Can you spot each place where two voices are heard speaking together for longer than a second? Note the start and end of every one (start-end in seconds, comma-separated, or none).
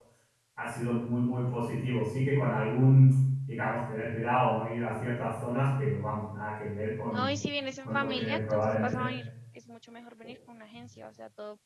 7.8-9.1